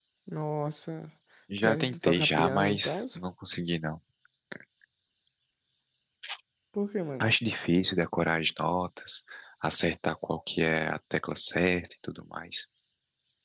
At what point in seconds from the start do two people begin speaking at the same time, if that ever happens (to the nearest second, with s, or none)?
2 s